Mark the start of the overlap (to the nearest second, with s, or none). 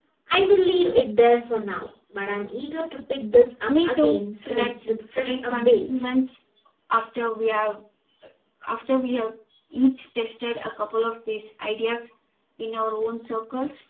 4 s